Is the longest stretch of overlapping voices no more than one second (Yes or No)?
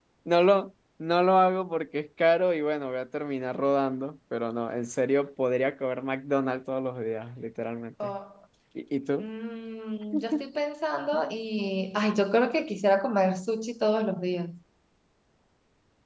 Yes